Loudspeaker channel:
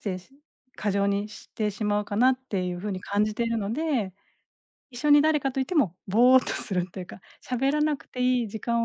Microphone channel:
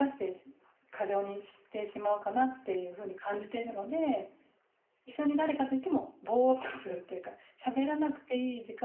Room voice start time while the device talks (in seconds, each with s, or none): none